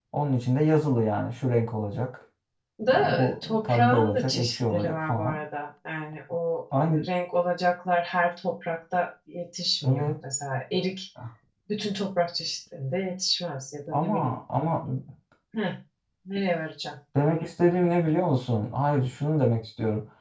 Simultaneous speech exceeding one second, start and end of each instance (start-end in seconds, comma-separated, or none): 2.9-5.4